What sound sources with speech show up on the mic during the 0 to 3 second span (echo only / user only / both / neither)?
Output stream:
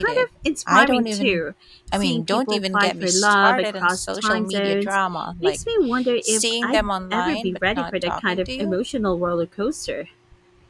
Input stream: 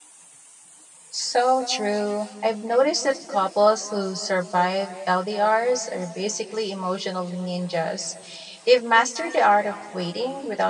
user only